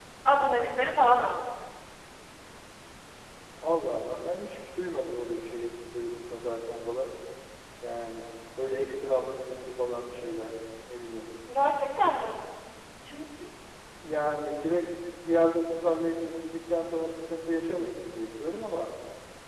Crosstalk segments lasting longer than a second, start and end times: none

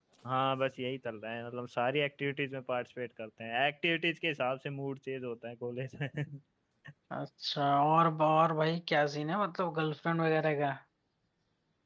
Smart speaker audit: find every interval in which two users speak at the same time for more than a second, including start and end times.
none

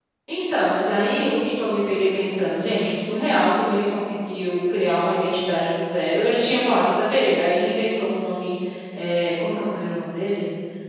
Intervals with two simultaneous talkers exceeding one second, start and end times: none

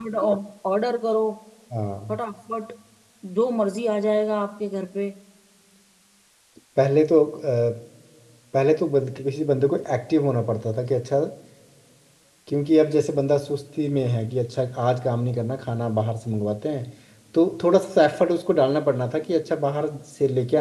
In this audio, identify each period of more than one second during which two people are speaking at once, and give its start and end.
none

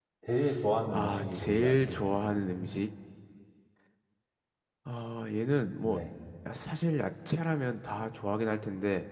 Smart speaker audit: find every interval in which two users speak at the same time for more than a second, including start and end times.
0.9-2.2

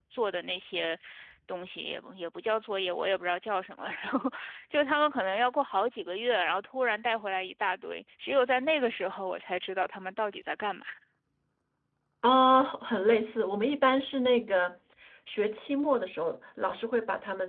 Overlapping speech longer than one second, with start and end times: none

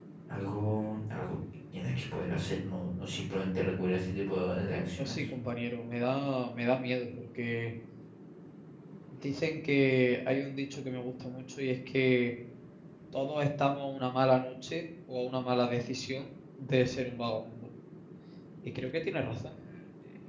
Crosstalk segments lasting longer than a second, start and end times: none

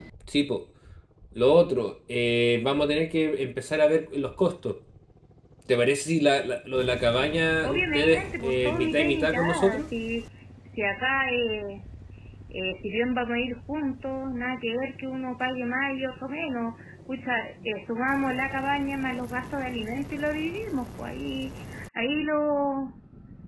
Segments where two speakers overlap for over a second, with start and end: 7.6-9.8

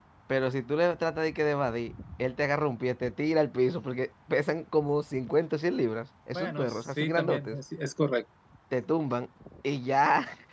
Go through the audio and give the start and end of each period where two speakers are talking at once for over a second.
6.3-7.6

